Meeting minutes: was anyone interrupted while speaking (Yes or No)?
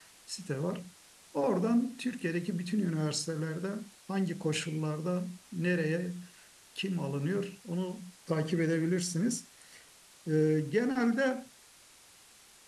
No